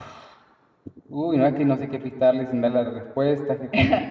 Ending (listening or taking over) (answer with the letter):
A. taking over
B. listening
A